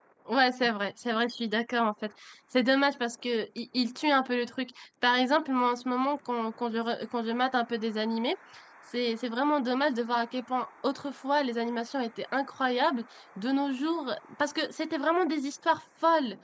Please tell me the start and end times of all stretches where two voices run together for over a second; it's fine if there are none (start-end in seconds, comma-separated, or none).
none